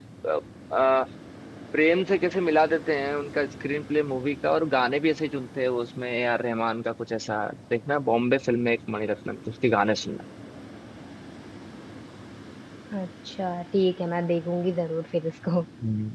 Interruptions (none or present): none